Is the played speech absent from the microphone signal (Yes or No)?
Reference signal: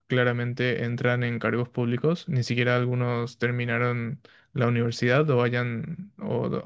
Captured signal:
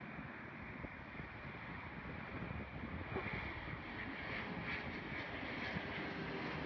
Yes